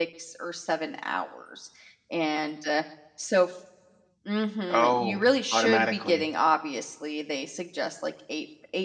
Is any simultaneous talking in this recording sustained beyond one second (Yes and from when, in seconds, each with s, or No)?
Yes, from 4.7 s